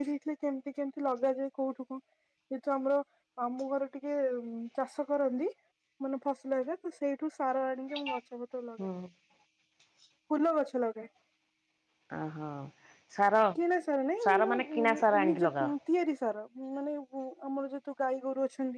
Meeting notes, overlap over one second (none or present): present